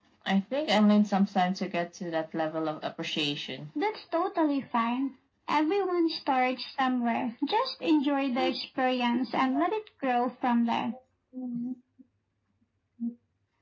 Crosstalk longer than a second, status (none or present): none